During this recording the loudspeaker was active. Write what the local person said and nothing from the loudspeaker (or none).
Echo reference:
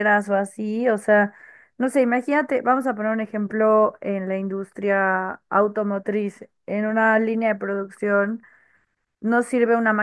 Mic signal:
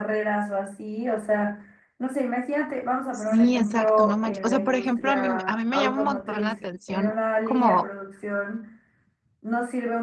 Sí, exacto, no manches. O sea, por ejemplo, a mí, a mí me llama un montón la atención como